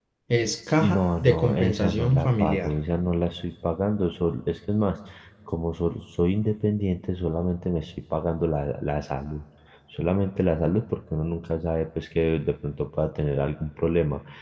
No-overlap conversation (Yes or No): No